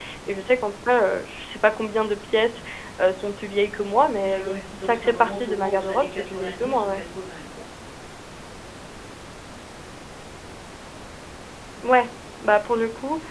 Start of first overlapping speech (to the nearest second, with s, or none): 4 s